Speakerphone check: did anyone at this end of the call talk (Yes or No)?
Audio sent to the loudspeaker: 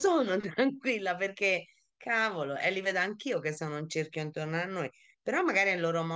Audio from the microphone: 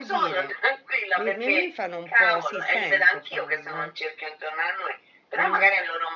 Yes